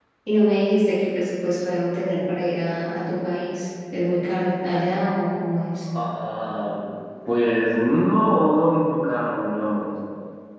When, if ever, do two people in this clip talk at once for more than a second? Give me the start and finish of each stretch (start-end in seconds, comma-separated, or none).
none